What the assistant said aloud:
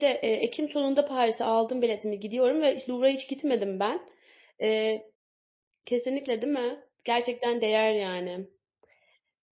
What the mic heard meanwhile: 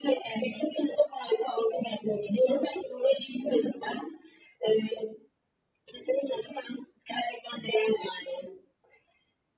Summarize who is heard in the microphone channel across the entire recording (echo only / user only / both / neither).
echo only